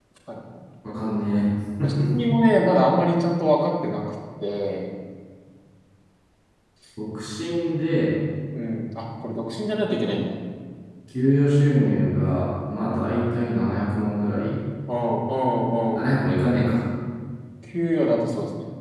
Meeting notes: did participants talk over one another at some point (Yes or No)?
No